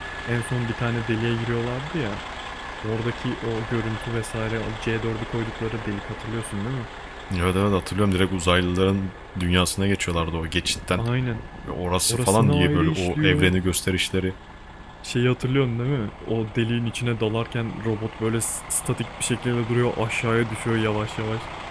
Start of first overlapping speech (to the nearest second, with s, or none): 12 s